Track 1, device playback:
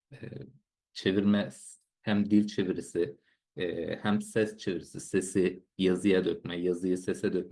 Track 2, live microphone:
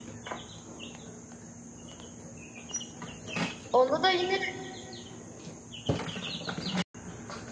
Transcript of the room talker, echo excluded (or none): Onda da yine,